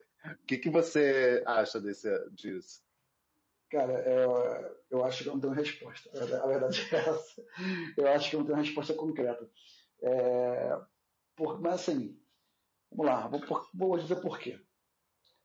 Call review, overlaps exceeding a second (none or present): none